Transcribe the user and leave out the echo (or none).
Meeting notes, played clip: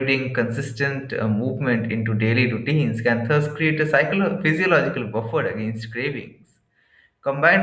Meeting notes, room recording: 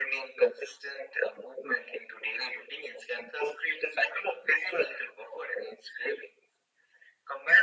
none